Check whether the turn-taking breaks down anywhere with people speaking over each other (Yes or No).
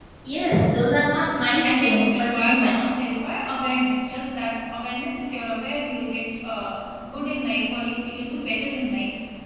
Yes